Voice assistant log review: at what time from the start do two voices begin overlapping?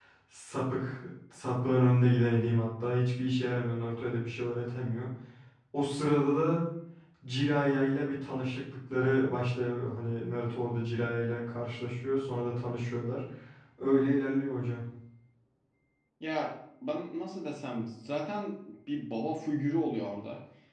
none

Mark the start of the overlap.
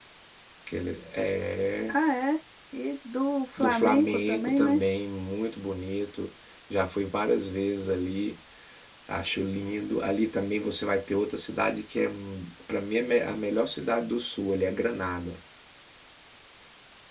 4 s

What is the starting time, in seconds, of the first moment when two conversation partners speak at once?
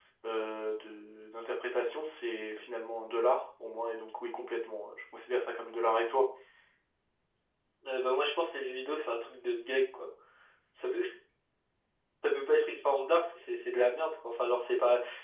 none

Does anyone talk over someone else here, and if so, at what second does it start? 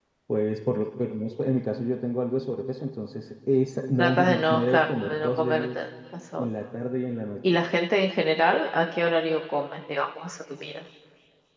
4 s

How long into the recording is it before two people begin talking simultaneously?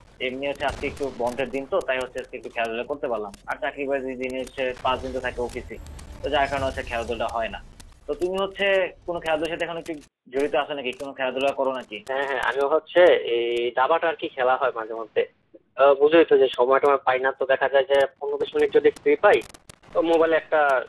none

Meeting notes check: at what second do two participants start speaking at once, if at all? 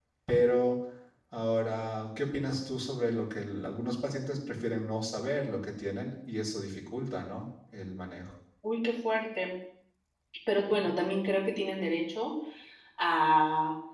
none

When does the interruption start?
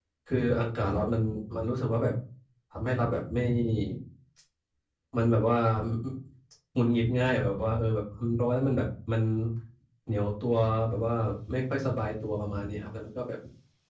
none

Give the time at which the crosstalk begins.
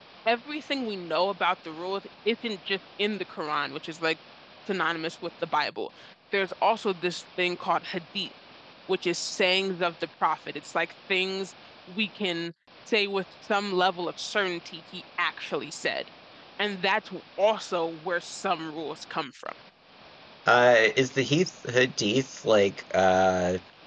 none

